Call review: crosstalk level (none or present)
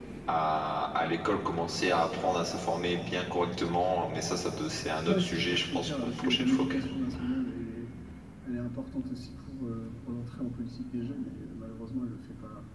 present